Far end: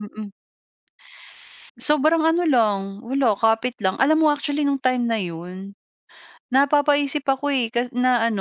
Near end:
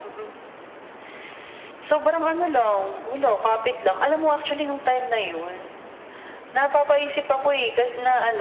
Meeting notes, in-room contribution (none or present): none